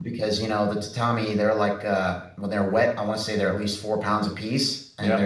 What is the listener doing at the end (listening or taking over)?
listening